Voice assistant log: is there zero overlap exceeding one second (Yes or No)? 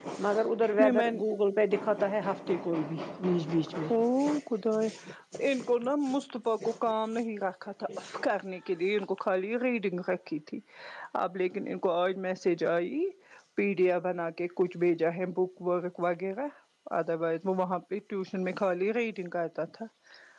Yes